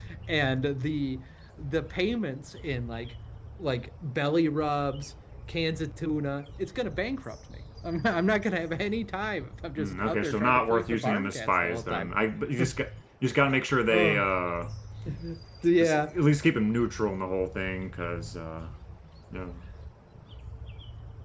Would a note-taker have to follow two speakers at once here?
Yes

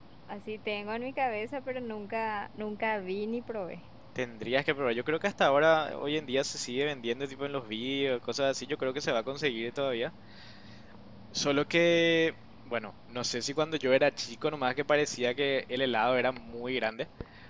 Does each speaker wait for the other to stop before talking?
Yes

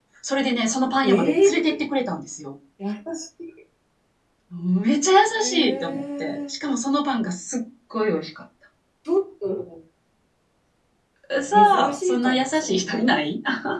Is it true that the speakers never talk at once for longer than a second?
No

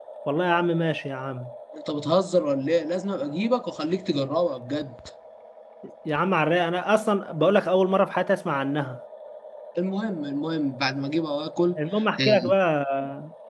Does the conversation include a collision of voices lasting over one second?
No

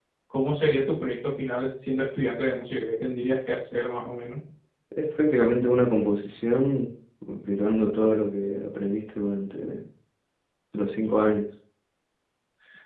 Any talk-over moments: No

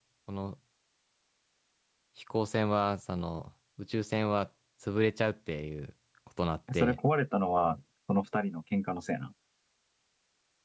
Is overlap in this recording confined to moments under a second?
Yes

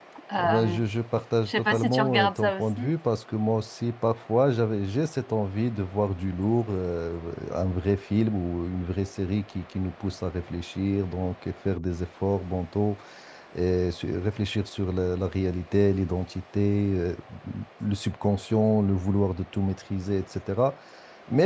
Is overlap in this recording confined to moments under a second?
No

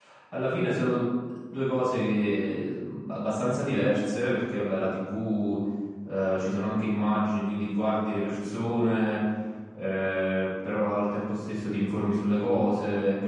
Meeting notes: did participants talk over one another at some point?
No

